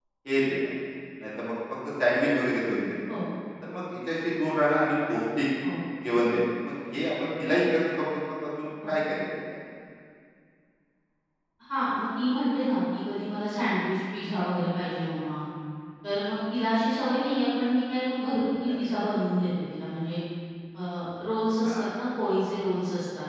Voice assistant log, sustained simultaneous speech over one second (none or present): none